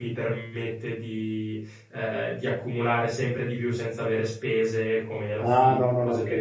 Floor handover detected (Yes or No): Yes